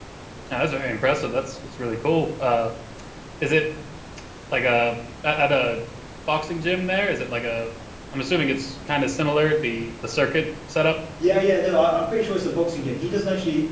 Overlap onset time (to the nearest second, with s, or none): none